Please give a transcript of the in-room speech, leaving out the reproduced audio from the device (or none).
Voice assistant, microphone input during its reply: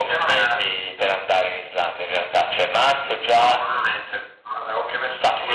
none